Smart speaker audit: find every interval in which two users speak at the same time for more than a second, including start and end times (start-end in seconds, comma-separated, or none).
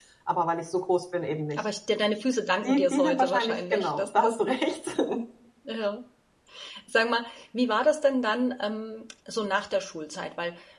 2.6-4.4